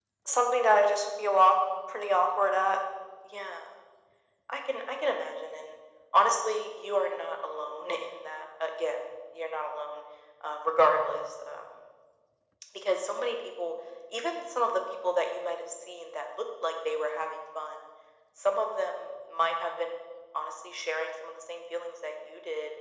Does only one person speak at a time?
Yes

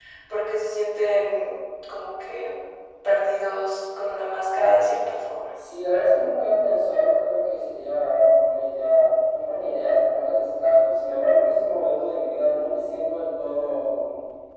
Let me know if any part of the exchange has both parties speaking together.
No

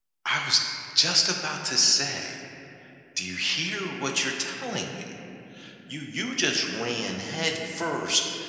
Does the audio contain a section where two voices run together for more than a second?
No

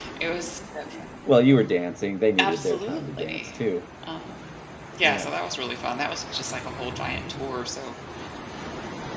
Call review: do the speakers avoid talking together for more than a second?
No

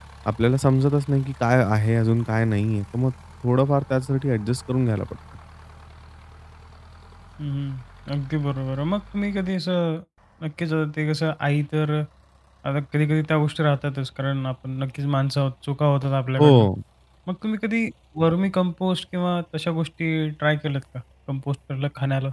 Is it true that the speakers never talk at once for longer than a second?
Yes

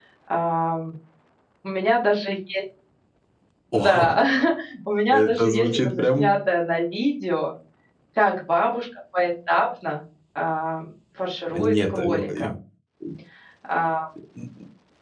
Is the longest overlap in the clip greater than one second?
Yes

